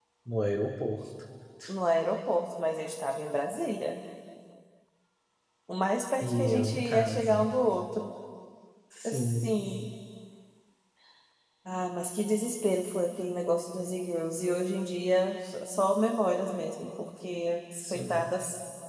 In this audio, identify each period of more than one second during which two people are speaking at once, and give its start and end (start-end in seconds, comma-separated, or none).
6.2-7.5